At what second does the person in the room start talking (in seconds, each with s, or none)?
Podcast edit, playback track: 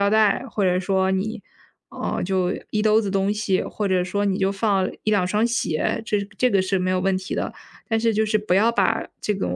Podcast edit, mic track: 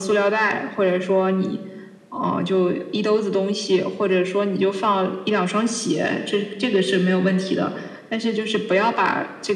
none